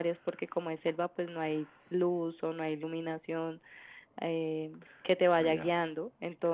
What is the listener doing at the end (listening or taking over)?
listening